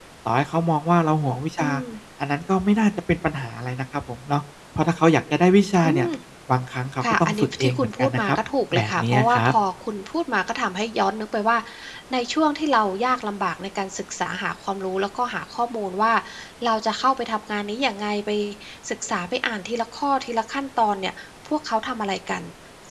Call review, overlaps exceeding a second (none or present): present